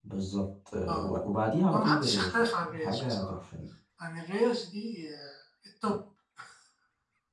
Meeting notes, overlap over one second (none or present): present